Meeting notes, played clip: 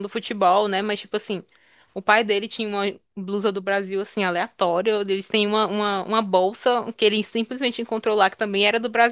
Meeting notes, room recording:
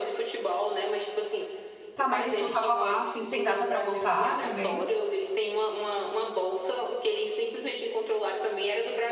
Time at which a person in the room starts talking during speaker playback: 1.9 s

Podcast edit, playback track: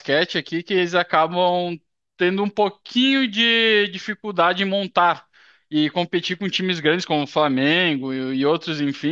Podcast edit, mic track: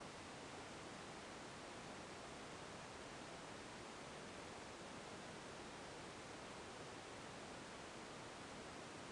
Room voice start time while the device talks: none

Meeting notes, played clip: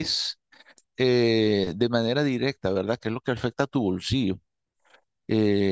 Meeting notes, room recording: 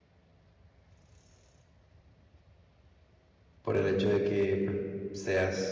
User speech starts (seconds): 3.6 s

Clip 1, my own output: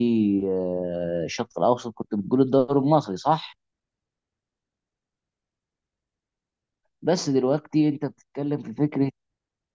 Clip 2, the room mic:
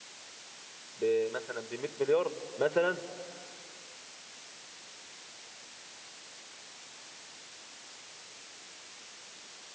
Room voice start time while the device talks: 0.9 s

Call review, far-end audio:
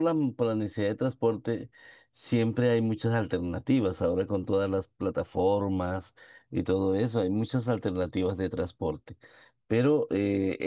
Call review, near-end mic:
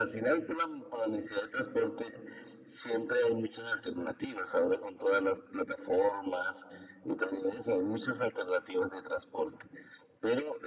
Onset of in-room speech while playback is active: none

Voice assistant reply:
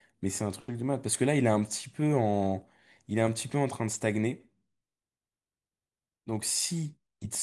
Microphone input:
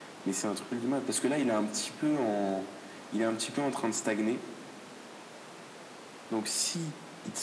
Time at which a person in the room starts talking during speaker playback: none

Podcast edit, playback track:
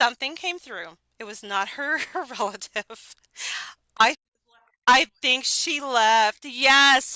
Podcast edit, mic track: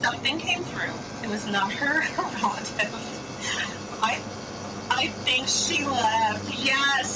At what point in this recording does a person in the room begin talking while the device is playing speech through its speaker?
none

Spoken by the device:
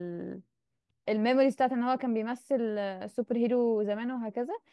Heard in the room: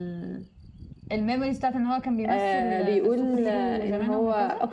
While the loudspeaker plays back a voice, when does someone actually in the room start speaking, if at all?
2.3 s

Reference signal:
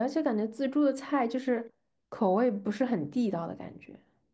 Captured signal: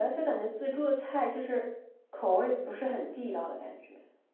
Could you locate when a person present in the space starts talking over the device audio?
none

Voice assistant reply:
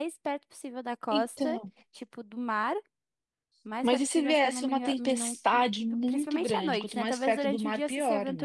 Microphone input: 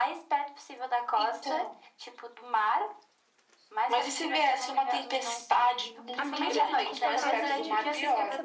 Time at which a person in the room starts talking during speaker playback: 6.2 s

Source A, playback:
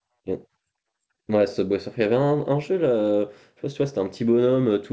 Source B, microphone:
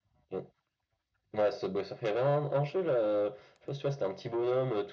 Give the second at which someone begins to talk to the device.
none

